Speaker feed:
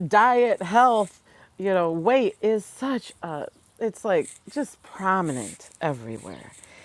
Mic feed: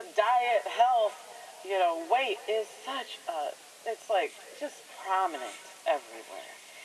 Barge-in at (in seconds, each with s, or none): none